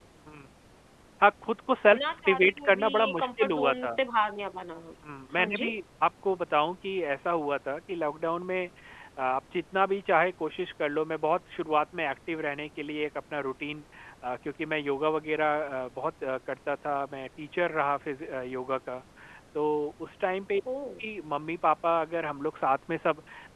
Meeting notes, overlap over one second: present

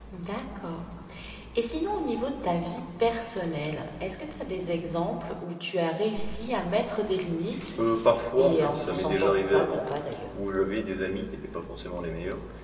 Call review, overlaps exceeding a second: present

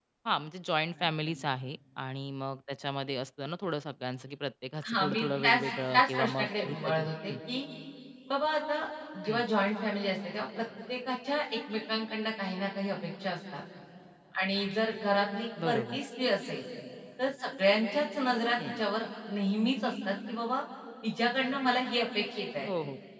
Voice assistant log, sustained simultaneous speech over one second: present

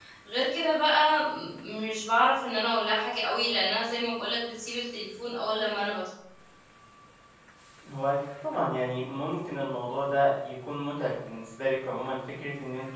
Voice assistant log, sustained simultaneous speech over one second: none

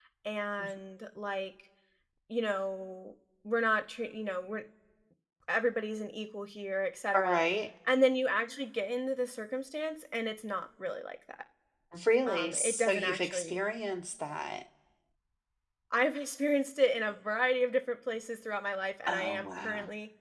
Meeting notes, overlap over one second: present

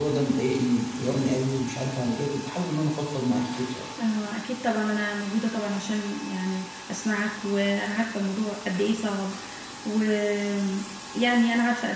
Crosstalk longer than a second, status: none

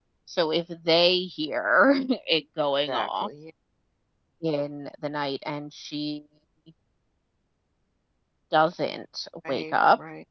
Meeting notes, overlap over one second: none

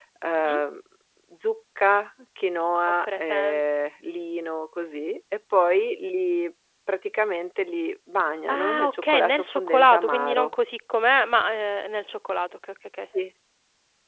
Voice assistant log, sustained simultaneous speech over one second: present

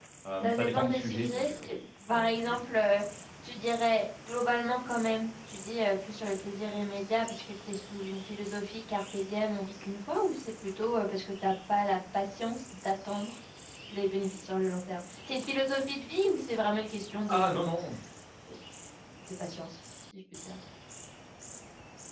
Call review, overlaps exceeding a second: present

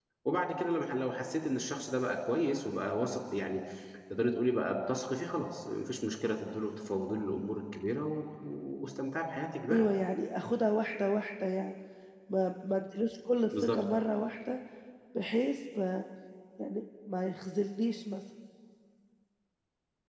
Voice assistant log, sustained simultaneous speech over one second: none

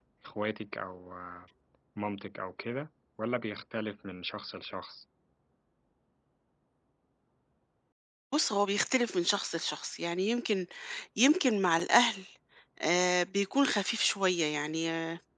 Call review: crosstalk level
none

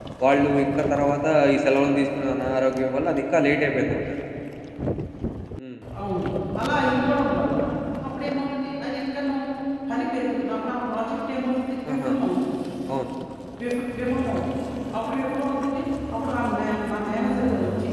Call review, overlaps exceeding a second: none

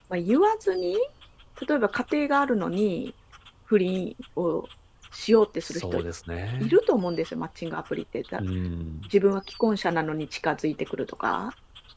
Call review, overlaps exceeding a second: none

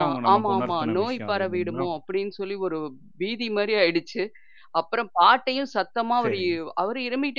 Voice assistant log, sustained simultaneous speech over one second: present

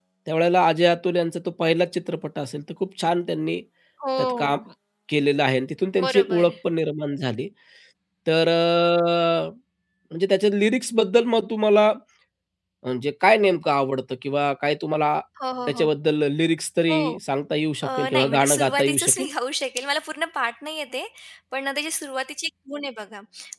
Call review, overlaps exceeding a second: present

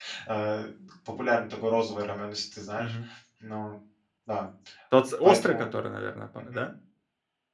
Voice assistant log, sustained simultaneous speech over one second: none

